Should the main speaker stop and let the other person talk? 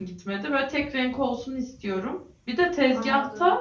No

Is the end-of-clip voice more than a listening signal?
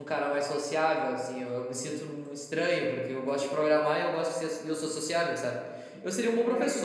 No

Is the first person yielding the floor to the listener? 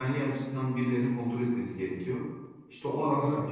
No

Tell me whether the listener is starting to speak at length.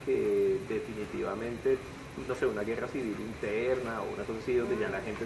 No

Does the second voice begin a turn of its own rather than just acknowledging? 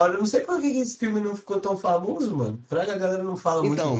Yes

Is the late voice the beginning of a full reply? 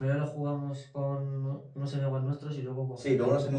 Yes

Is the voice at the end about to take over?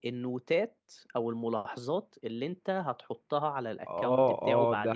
Yes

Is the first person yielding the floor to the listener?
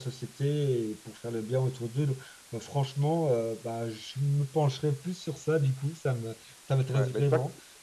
Yes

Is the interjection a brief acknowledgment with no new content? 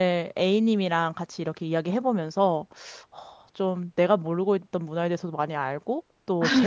Yes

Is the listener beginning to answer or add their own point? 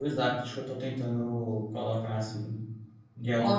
Yes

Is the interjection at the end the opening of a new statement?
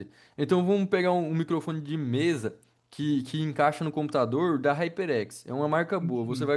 No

